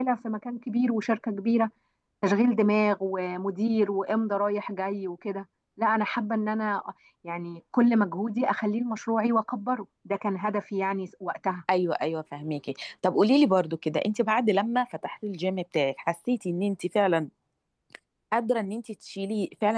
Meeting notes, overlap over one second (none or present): none